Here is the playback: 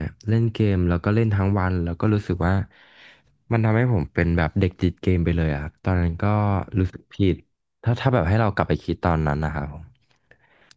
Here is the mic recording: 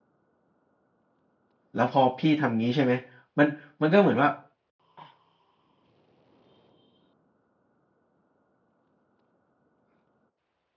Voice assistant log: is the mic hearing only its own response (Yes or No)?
No